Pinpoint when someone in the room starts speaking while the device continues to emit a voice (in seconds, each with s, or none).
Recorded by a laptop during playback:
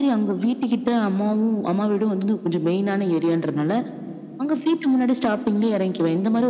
none